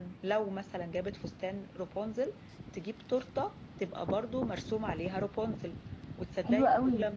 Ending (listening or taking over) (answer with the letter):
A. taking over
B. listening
B